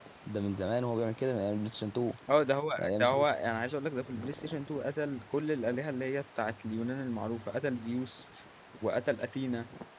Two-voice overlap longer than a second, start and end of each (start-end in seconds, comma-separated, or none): none